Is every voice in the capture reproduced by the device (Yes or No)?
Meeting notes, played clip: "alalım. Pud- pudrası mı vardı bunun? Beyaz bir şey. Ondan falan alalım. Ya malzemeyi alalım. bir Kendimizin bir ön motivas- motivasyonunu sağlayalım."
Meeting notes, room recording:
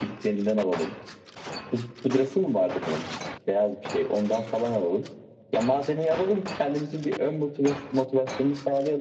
Yes